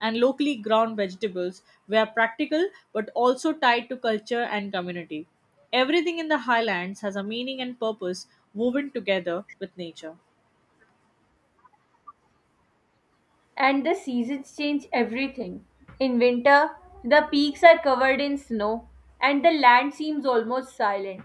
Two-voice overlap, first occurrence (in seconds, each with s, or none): none